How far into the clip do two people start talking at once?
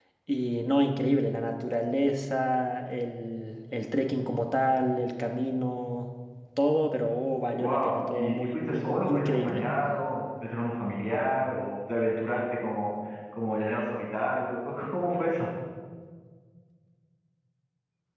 8 s

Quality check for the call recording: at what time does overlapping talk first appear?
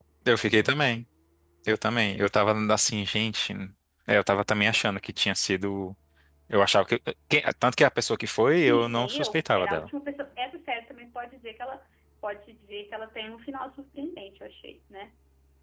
9 s

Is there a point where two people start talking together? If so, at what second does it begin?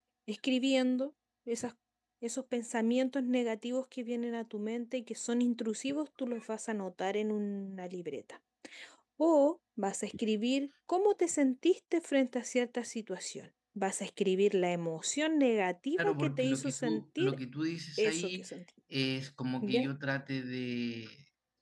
16 s

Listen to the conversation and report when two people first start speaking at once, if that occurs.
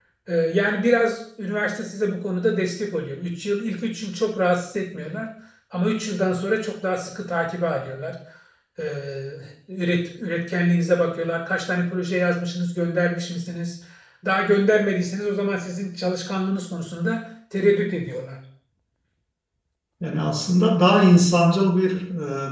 none

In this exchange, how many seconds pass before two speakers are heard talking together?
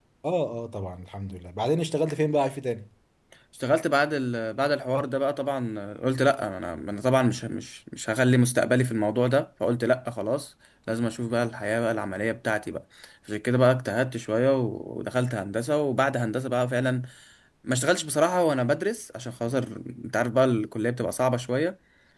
none

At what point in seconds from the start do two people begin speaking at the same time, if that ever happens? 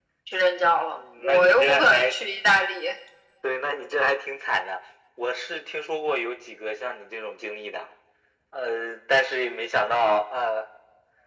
1 s

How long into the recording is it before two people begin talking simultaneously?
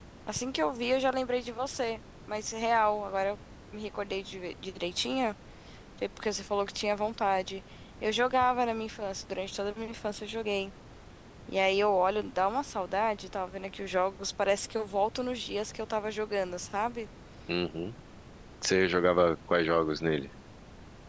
none

